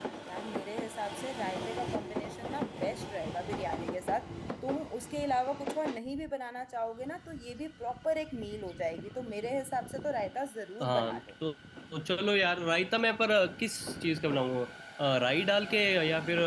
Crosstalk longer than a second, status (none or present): none